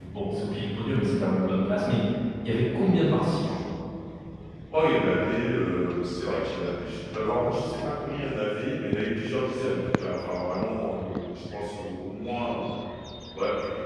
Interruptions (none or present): none